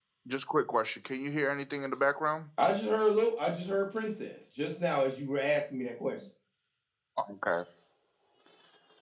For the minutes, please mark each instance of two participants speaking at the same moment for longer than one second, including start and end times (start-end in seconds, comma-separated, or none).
none